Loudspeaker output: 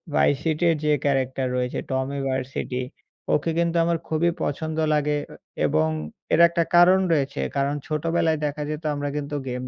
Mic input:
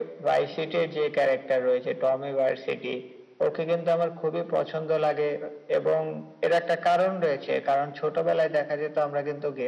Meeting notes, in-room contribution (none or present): none